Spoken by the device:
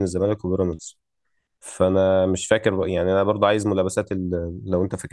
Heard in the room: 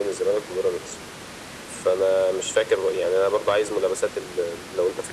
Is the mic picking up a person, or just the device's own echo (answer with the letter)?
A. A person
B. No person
B